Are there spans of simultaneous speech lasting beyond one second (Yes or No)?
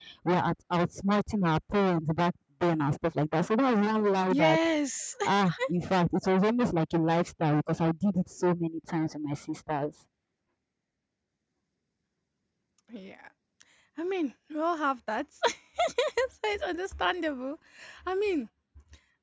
No